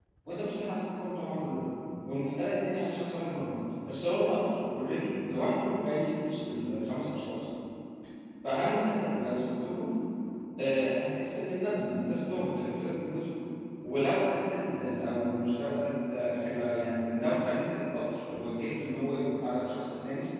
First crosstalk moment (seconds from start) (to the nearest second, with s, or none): none